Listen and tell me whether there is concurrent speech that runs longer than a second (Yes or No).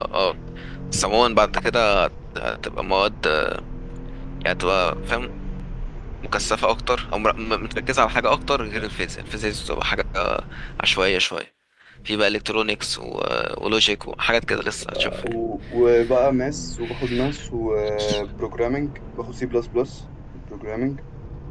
No